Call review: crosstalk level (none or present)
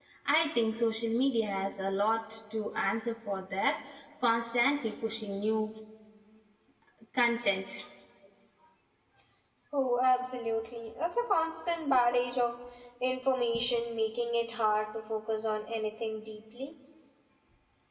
none